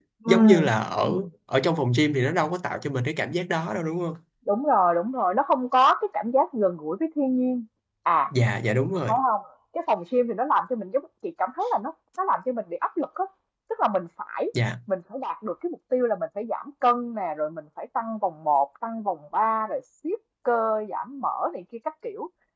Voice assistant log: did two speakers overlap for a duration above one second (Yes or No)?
No